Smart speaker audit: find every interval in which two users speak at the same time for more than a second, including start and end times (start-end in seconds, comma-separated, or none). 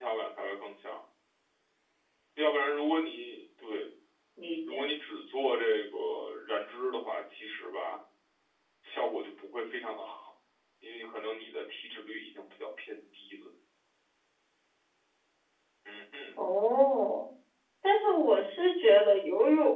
none